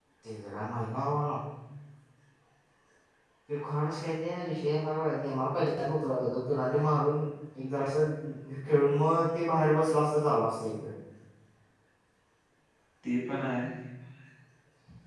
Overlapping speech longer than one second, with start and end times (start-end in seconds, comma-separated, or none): none